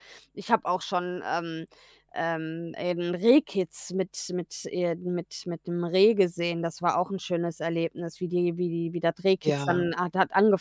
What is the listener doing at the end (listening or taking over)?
listening